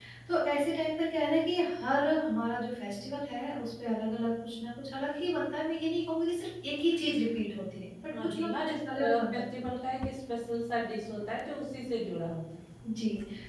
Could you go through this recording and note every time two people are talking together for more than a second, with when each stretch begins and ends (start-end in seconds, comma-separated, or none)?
8.1-9.4